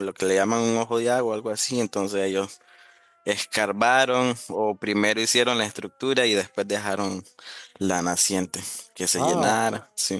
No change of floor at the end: No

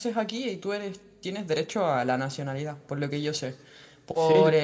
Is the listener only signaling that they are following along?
Yes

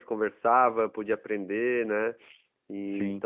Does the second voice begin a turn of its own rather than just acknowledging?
No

